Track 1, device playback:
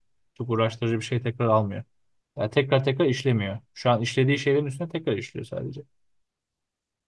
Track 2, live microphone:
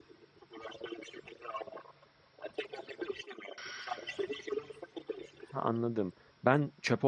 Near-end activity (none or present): present